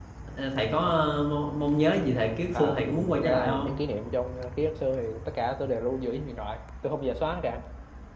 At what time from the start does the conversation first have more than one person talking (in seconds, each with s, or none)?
2.5 s